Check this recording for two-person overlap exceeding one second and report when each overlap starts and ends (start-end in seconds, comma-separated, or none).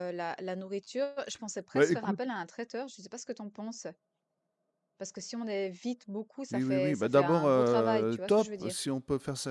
6.5-8.7